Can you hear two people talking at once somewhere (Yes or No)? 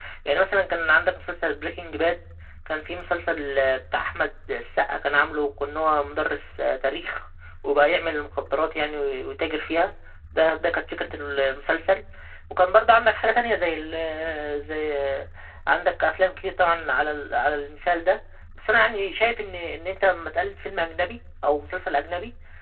No